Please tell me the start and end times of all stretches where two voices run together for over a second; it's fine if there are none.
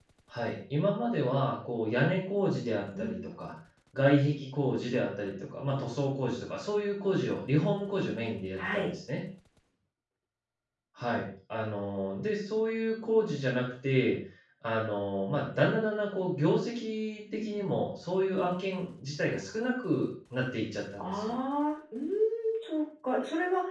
none

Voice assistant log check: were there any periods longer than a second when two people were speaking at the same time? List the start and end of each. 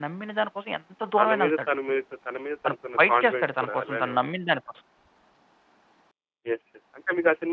2.6-4.2

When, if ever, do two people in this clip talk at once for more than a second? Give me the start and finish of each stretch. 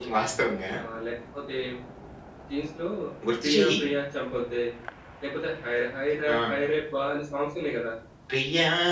none

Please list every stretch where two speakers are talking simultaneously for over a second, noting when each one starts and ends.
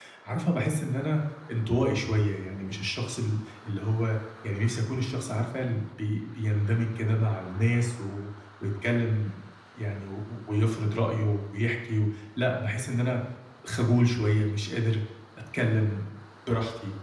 none

